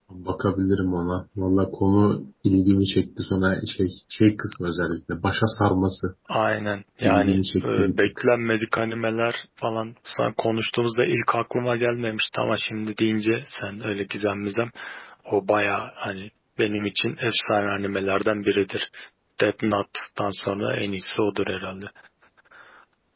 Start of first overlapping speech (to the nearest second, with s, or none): 7 s